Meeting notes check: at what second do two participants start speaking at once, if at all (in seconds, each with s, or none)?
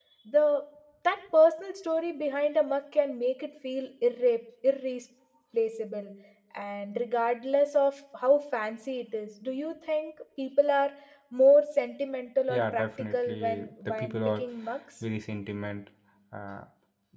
12.5 s